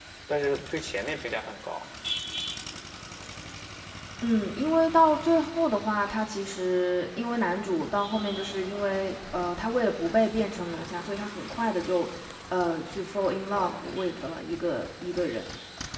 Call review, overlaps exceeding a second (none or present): none